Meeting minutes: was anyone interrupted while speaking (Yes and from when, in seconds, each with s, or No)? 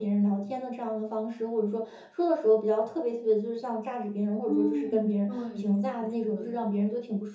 Yes, from 4.5 s